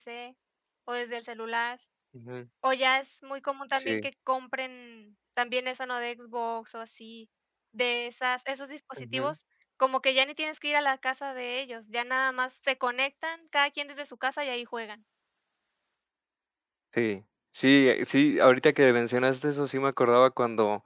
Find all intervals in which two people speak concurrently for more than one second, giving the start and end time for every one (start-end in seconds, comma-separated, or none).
none